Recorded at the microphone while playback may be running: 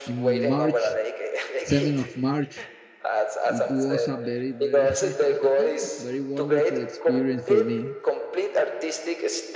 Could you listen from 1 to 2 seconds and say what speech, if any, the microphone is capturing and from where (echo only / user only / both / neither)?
both